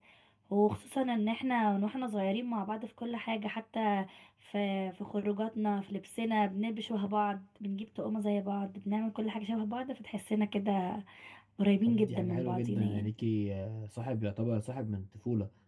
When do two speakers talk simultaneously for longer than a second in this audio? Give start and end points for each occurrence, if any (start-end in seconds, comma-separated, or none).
11.9-13.1